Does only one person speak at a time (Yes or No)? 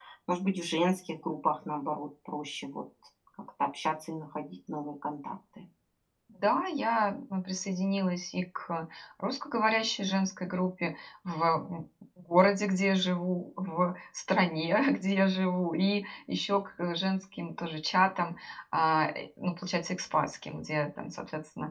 Yes